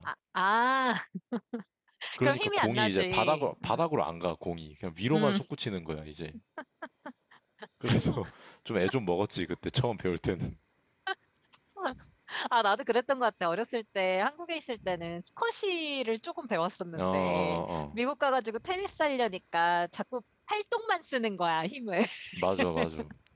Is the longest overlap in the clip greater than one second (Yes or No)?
Yes